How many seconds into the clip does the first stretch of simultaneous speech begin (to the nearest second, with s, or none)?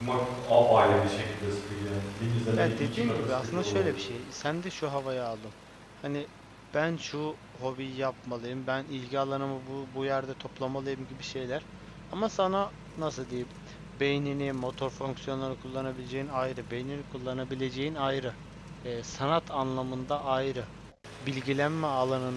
3 s